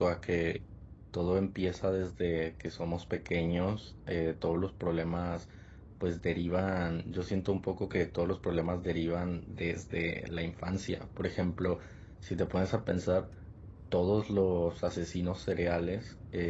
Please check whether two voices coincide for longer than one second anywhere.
No

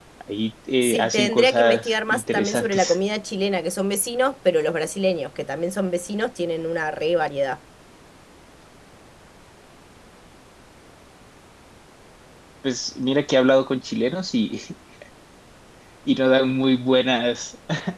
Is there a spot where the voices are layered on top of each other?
Yes, from 0.8 s

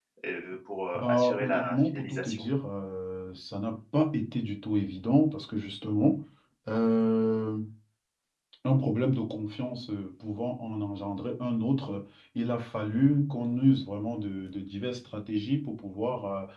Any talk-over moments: Yes, from 1.0 s

